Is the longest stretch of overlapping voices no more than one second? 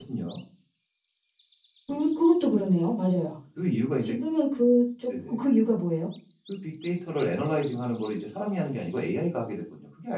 Yes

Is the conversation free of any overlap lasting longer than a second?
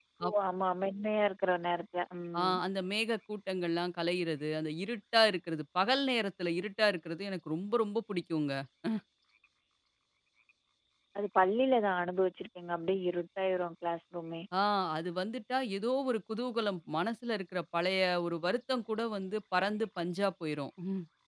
Yes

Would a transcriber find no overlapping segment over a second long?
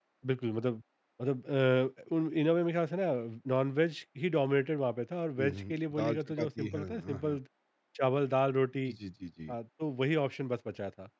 No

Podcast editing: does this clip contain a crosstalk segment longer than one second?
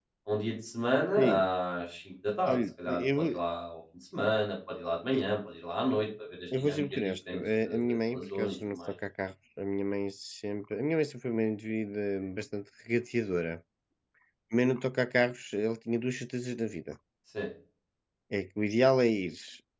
Yes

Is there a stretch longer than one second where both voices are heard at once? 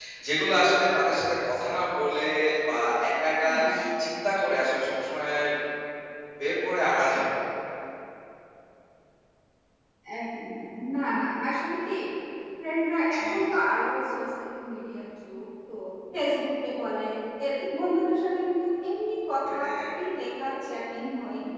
No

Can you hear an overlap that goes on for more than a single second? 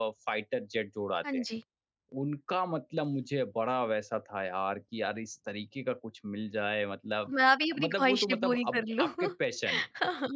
Yes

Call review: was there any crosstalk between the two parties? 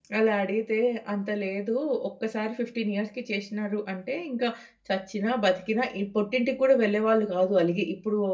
No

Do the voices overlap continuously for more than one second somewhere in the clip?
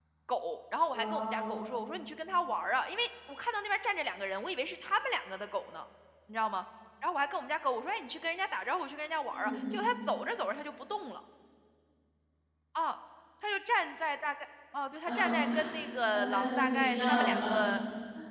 Yes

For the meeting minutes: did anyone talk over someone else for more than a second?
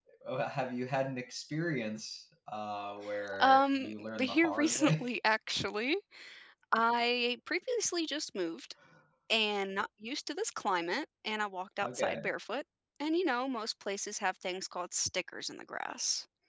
Yes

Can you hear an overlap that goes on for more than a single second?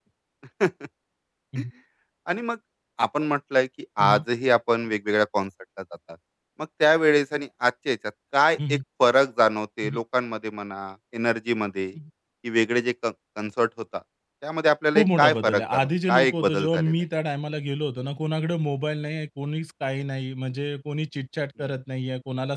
Yes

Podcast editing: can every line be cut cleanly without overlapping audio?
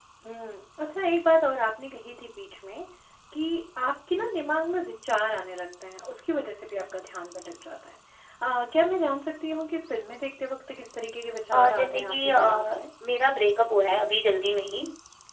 No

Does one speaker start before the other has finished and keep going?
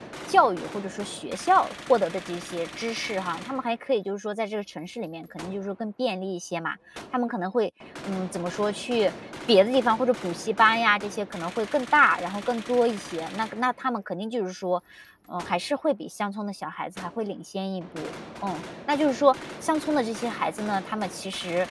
No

